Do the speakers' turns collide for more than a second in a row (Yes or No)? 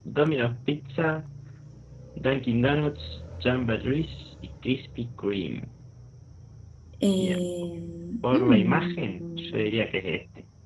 Yes